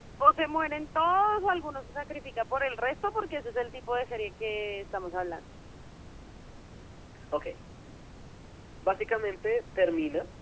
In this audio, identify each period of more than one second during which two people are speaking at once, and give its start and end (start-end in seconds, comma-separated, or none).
none